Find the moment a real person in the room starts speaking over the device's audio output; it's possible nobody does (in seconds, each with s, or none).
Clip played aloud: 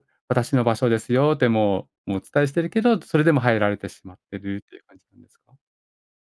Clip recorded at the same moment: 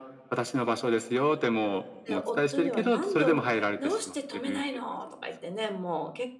2.0 s